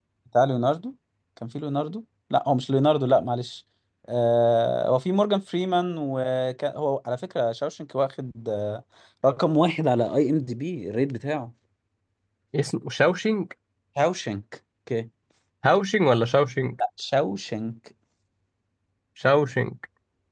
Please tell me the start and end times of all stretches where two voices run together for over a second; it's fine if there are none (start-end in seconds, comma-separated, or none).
none